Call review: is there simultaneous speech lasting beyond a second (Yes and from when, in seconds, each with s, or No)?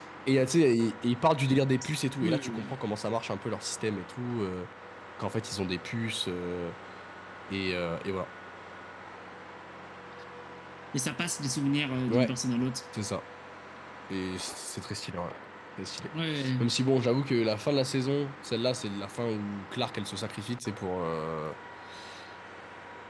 No